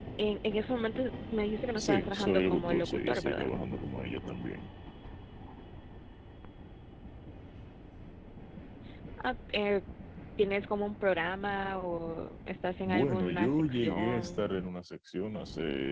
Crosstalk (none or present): present